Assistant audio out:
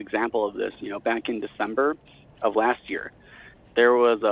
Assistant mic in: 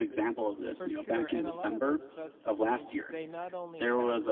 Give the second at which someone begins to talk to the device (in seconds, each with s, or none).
0.8 s